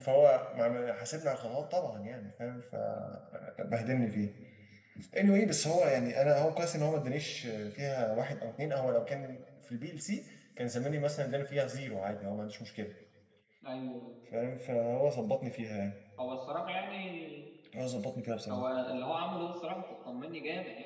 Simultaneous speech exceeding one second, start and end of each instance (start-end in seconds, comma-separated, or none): none